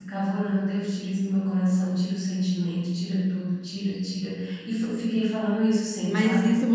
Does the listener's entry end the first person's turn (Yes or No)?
Yes